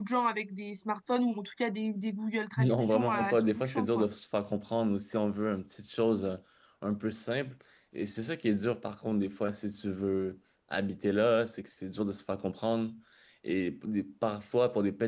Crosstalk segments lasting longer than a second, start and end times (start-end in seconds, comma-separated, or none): 2.6-4.1